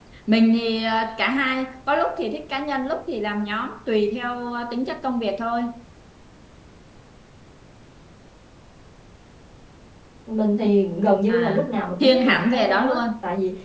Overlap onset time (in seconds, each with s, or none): 11.3 s